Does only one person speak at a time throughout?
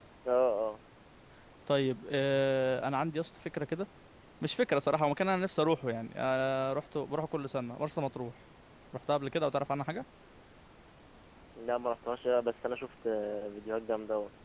Yes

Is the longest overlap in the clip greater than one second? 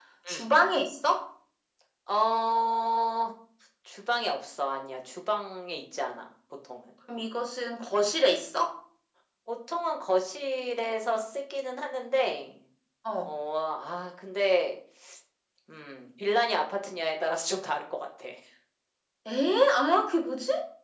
No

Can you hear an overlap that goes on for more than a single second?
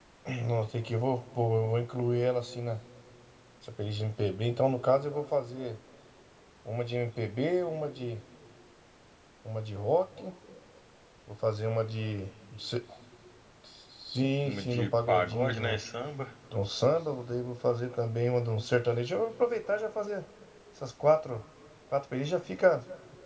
Yes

